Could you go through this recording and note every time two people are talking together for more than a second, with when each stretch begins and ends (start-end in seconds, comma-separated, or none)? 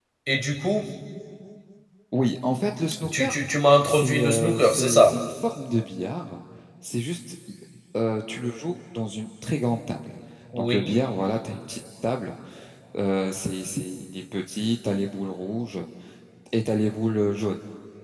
3.9-5.2